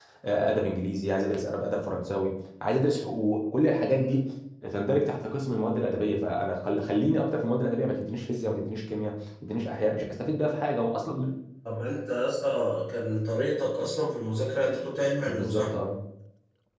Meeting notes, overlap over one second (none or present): none